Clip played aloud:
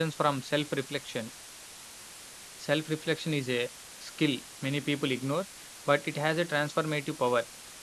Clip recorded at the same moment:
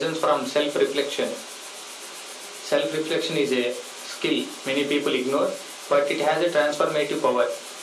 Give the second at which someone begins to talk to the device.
none

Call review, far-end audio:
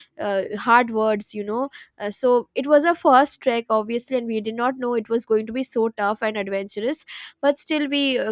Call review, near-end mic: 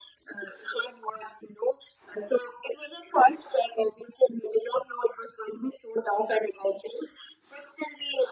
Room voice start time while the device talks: none

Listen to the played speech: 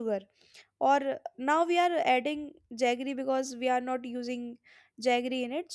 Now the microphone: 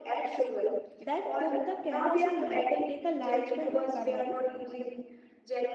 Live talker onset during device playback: 1.0 s

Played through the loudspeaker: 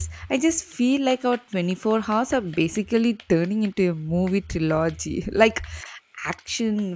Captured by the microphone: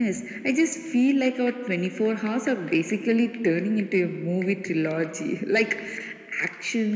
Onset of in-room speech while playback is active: none

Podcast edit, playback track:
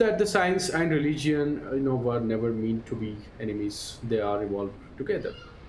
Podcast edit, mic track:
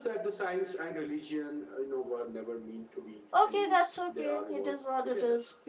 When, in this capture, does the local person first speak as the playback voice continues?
3.4 s

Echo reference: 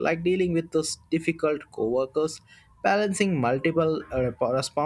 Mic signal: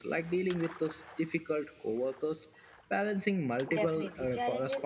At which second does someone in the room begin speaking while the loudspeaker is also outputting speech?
3.7 s

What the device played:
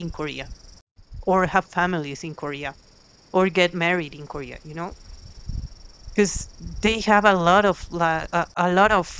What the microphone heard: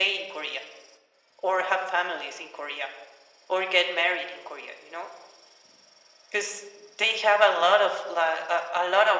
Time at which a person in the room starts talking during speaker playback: none

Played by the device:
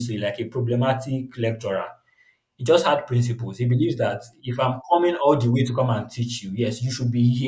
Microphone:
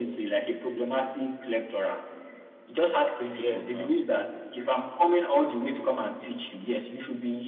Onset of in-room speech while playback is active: 3.3 s

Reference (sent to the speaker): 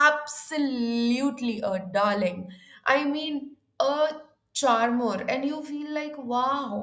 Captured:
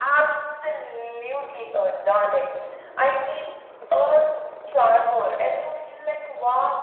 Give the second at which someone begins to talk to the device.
none

